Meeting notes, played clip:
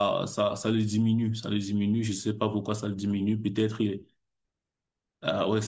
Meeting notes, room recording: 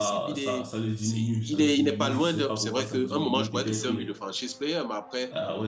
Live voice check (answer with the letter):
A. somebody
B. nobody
A